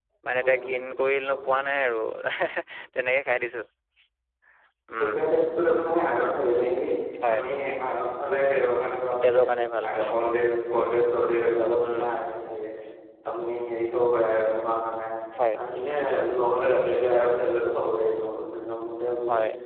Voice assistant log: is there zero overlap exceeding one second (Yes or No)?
Yes